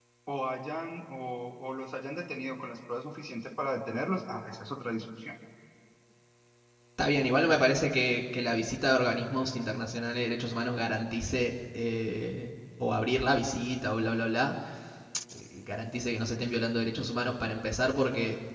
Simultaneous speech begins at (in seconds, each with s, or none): none